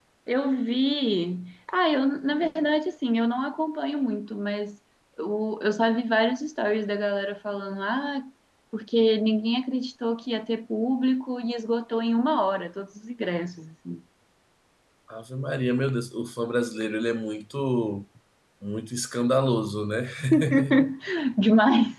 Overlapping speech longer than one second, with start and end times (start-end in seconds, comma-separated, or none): none